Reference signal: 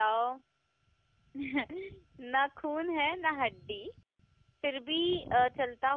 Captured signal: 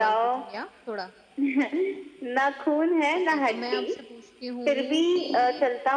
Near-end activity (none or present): present